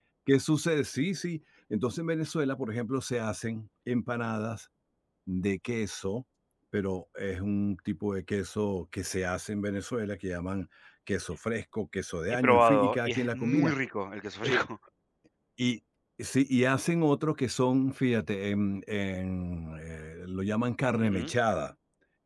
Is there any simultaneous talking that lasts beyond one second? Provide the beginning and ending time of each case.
12.4-13.7

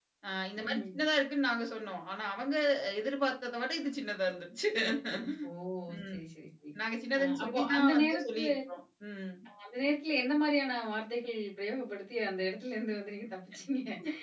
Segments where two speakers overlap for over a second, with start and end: 7.2-8.5

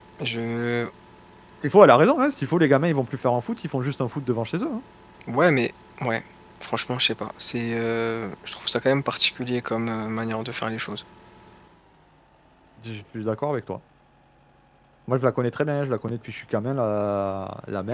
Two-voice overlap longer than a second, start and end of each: none

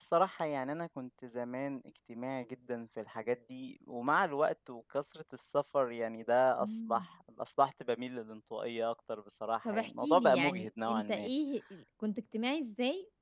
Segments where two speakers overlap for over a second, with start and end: 9.7-11.3

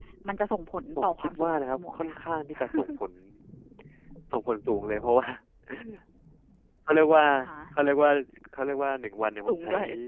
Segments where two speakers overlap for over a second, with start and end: 1.0-2.2

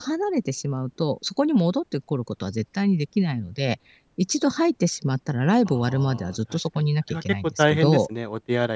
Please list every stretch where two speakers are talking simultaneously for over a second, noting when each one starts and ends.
5.7-8.1

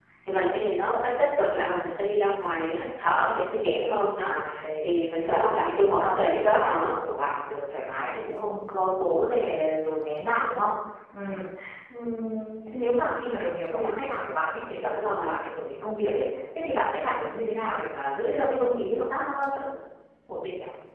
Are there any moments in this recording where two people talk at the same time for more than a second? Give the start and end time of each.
5.2-6.9

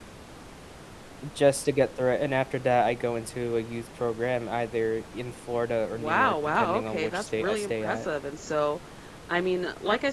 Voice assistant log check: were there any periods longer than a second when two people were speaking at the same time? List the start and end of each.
5.9-8.1

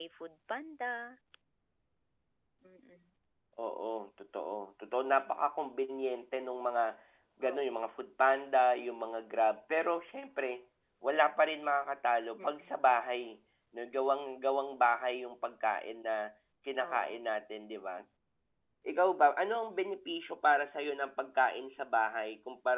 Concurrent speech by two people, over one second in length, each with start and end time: none

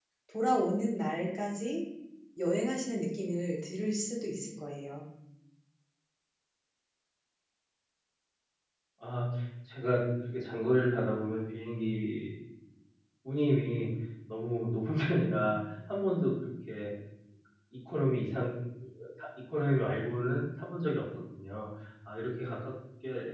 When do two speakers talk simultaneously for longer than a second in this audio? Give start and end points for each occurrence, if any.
none

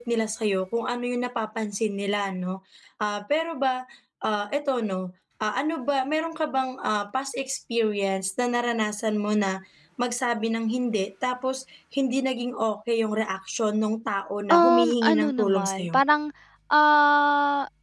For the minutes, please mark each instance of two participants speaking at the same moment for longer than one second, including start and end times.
14.5-15.9

